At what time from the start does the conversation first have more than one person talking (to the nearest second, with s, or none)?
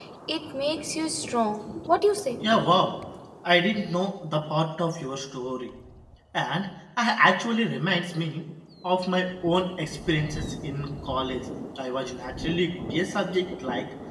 none